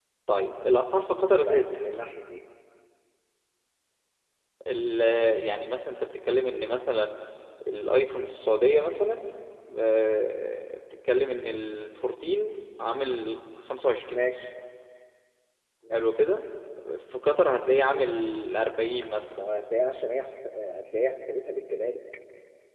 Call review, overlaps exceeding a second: none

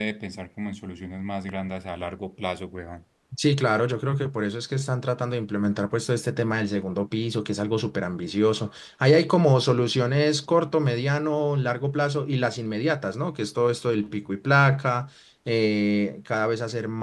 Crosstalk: none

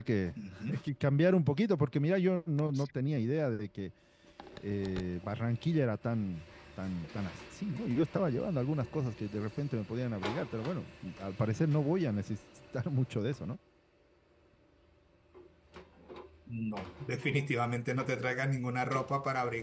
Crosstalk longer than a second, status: none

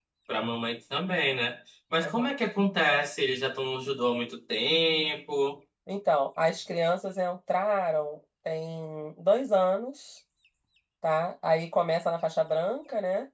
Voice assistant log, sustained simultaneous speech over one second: none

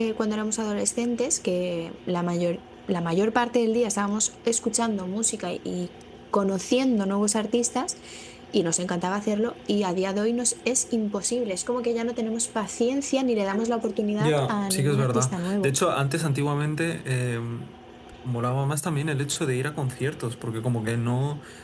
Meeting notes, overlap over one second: present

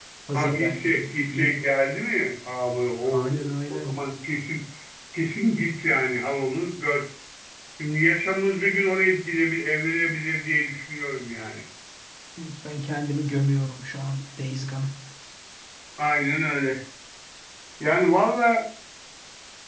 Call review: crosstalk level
present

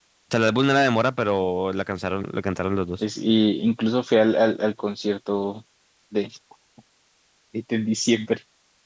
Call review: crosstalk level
none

